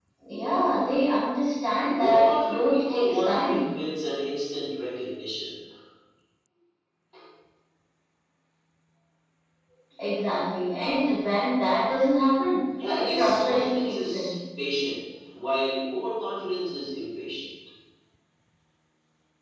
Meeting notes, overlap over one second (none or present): present